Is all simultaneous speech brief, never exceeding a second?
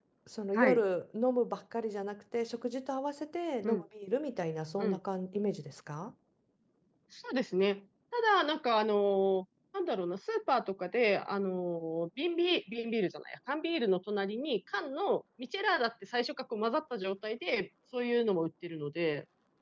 Yes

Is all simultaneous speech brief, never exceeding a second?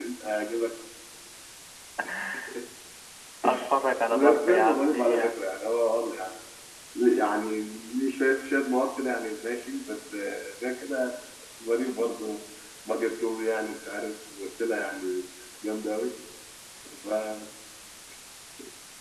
No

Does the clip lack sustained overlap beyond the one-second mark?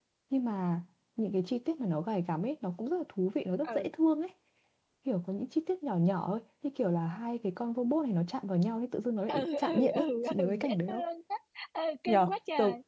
No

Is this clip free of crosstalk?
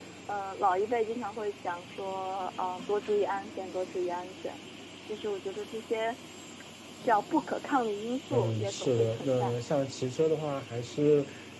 No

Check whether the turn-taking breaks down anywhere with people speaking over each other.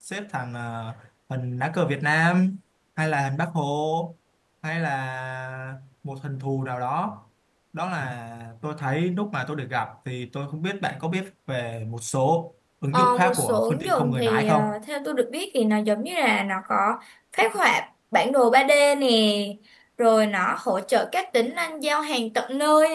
Yes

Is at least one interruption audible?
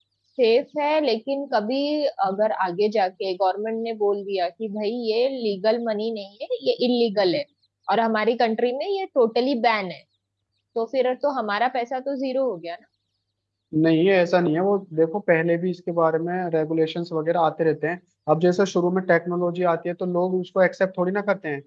No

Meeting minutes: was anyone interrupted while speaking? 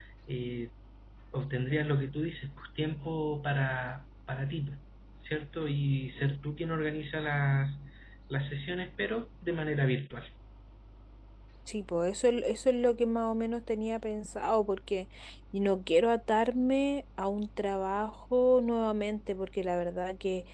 No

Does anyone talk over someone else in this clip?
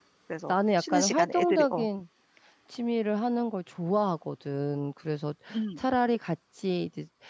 Yes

